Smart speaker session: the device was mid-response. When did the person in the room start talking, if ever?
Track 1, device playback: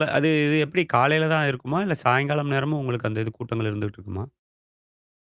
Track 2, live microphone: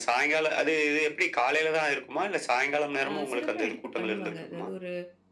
3.1 s

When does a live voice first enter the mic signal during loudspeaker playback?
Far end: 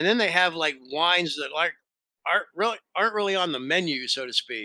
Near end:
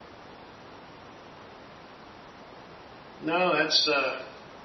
3.2 s

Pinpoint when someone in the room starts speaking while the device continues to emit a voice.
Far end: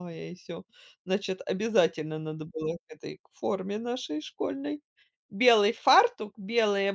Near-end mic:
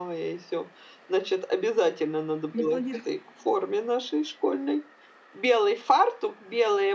2.5 s

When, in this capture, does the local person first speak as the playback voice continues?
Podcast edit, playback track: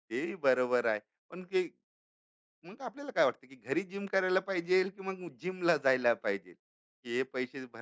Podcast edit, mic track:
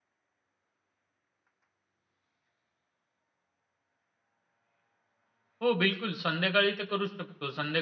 5.6 s

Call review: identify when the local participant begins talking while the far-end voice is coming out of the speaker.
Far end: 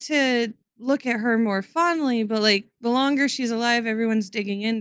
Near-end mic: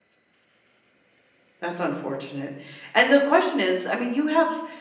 1.6 s

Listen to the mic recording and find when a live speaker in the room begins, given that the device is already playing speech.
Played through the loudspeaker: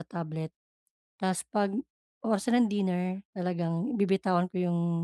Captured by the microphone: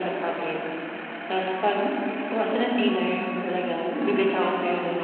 none

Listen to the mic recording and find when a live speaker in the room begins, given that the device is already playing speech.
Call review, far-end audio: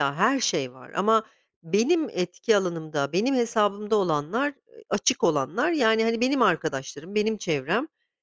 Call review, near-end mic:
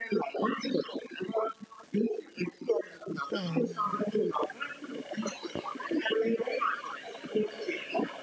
3.3 s

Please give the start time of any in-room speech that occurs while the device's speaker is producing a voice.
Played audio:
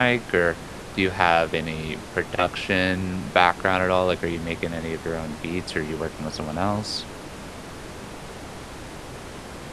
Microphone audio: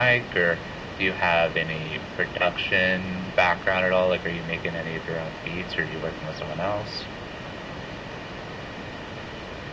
none

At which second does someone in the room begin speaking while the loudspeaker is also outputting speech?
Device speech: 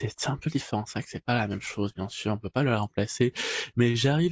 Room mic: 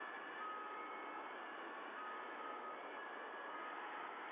none

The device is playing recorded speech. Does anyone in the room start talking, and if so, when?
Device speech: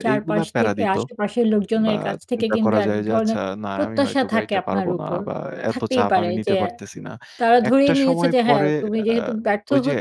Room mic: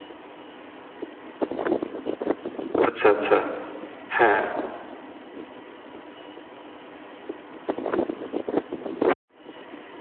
2.9 s

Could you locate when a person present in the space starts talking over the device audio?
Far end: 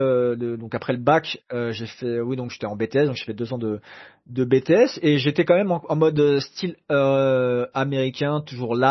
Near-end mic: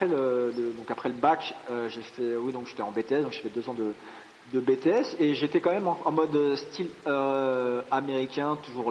none

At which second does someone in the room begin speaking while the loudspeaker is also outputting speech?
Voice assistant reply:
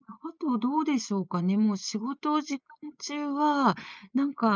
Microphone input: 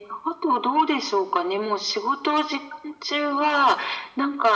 none

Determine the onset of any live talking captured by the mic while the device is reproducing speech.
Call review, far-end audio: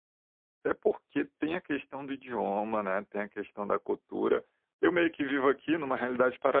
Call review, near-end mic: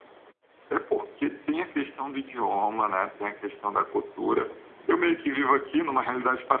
none

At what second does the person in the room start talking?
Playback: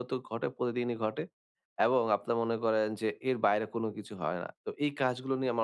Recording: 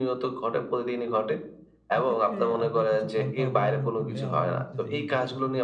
2.0 s

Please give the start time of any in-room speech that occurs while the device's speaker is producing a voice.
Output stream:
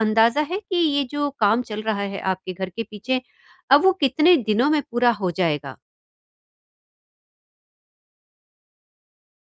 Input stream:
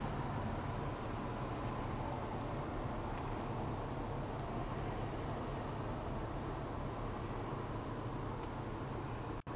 none

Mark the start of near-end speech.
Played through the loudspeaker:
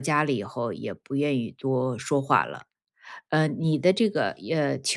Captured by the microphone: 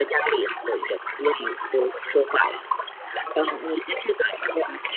none

